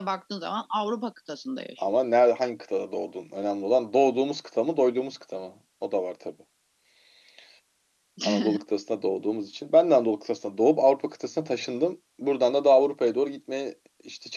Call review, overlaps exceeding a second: none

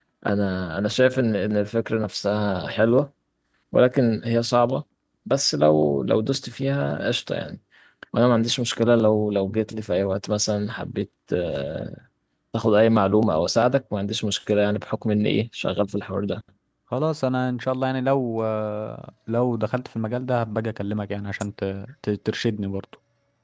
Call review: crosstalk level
none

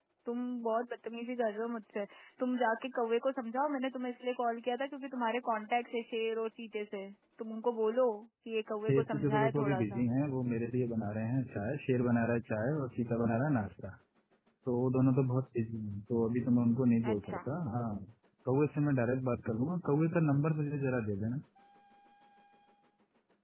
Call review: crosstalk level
present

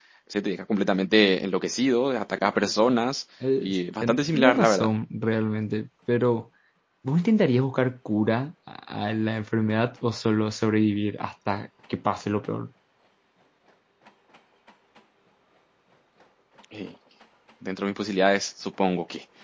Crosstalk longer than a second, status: present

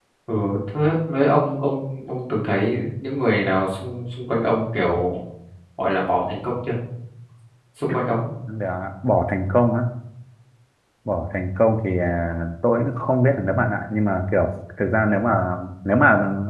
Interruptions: none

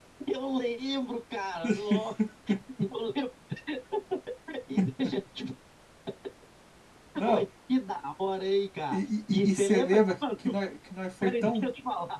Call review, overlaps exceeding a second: present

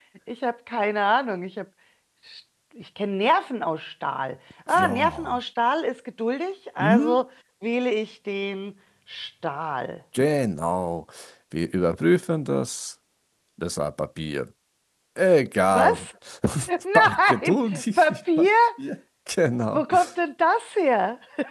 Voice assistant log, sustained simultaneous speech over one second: present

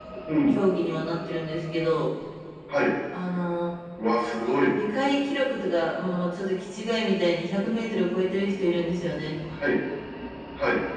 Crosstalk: none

